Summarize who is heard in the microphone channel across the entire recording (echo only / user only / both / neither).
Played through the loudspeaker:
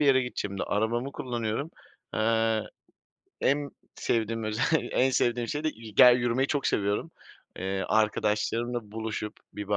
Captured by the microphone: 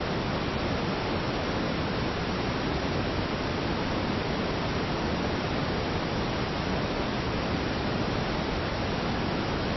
neither